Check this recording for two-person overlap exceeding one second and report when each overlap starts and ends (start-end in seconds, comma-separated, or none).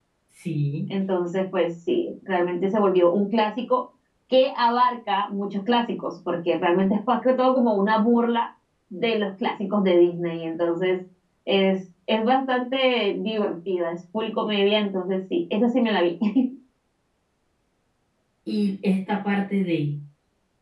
none